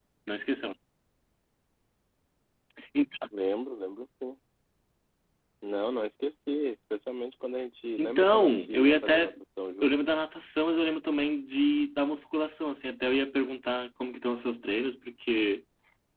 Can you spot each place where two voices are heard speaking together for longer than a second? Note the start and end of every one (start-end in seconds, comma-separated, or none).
8.0-9.3